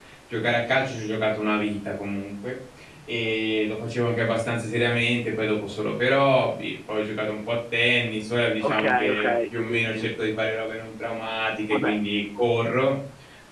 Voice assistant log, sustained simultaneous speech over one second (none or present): present